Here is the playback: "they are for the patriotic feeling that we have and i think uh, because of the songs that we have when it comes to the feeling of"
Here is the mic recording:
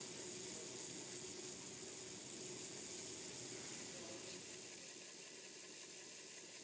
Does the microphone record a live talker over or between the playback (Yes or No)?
No